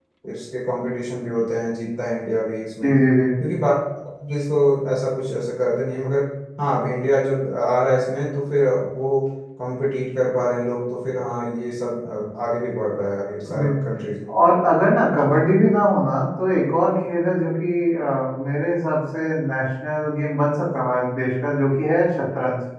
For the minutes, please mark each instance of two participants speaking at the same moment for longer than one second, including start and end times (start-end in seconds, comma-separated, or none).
none